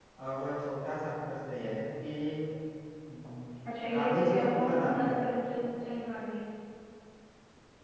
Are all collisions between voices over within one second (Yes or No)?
No